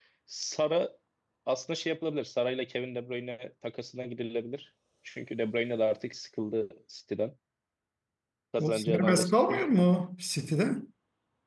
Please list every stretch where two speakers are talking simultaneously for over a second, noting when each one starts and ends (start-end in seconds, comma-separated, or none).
8.6-9.9